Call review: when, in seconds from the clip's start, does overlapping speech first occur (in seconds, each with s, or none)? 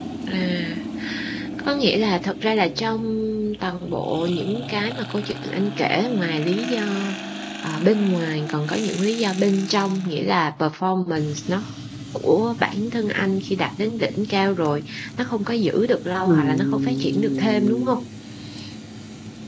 16.2 s